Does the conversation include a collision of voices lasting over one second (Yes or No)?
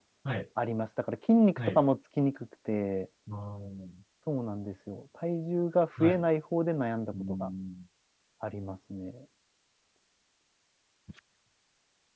No